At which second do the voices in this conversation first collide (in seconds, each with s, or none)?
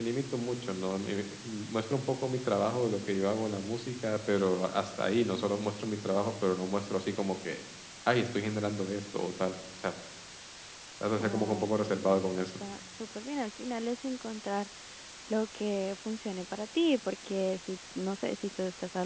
11.2 s